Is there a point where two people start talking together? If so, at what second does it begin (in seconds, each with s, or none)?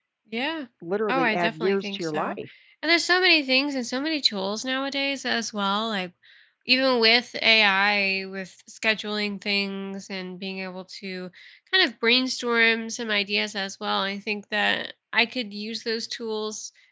1.1 s